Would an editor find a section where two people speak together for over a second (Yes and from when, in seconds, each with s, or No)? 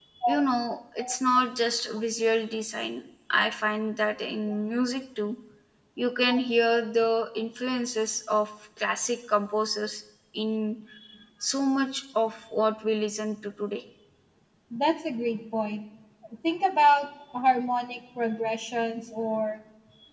No